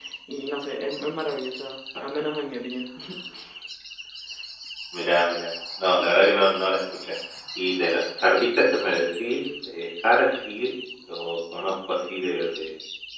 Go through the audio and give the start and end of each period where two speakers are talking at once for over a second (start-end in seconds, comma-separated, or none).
none